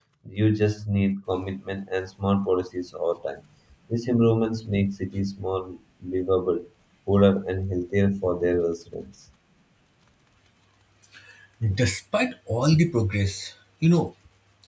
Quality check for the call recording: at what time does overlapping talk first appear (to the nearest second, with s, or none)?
none